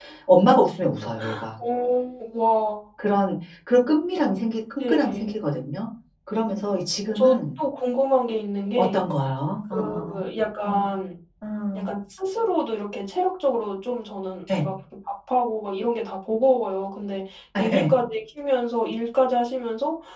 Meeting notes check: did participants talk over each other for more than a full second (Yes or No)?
No